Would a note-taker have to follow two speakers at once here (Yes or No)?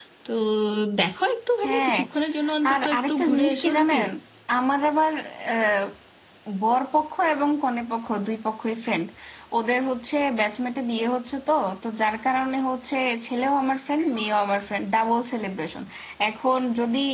Yes